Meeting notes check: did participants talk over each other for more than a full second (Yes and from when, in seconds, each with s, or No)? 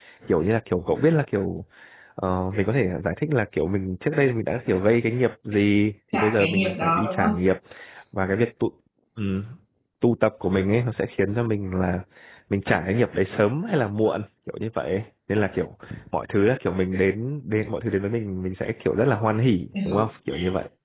Yes, from 6.1 s